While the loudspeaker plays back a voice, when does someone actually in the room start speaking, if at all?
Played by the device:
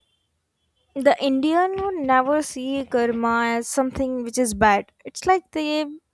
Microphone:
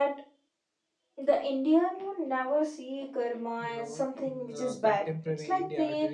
3.6 s

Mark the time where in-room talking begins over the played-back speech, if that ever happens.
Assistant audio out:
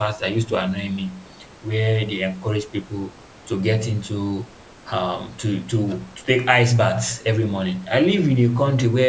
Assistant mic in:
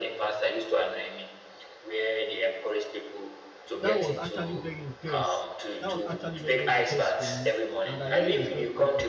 3.8 s

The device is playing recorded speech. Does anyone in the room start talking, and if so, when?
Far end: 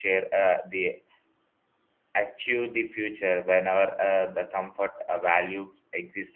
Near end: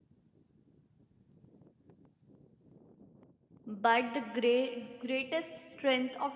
3.6 s

